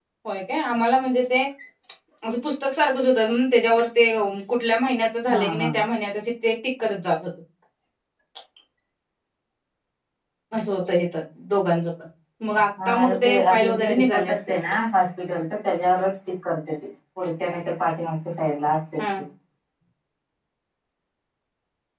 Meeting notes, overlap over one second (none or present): present